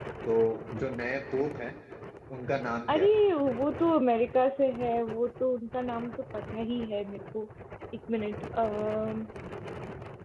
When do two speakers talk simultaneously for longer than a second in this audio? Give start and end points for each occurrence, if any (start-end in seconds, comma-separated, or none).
none